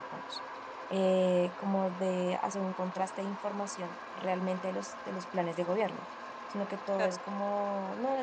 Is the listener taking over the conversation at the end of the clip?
No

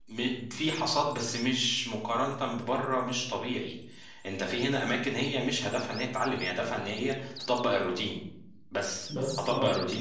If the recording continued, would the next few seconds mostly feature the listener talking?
No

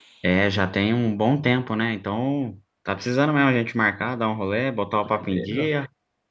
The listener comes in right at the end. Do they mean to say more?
Yes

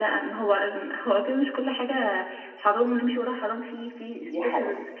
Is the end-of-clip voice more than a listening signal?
Yes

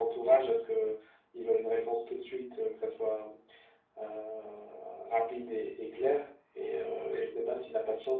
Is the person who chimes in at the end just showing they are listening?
Yes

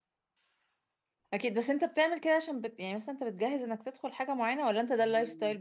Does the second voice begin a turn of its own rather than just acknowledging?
Yes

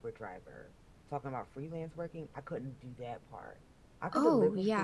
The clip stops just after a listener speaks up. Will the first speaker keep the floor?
Yes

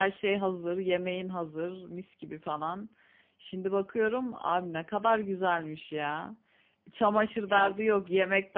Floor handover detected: No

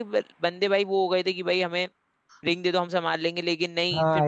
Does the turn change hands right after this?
No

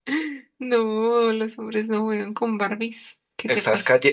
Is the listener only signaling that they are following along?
No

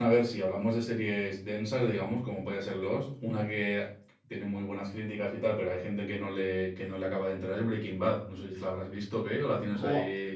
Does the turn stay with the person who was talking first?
No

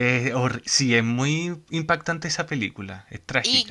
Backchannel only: No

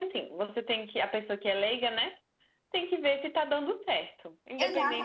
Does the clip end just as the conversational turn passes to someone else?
Yes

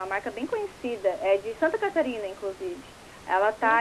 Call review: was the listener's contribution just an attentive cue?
Yes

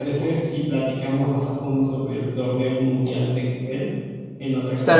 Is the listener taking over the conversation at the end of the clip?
Yes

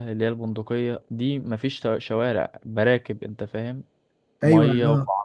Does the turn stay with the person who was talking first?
No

